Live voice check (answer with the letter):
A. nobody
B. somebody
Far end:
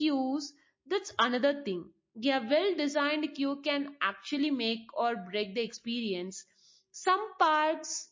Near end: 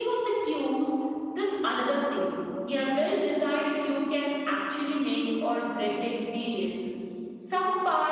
A